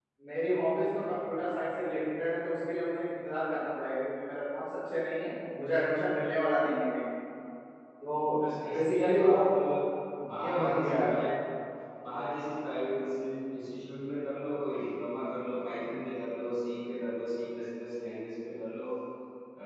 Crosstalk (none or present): present